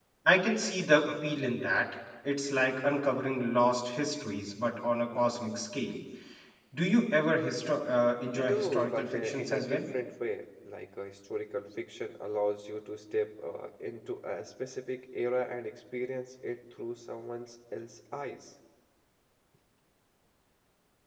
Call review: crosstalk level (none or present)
present